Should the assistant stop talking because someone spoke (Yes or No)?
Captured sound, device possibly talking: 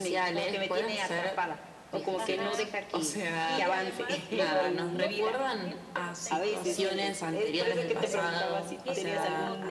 Yes